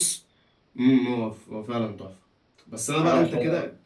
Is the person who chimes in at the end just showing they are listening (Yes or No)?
Yes